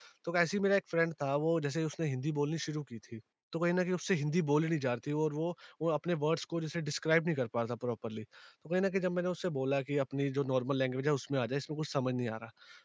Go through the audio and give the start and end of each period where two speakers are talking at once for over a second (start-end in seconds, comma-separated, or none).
none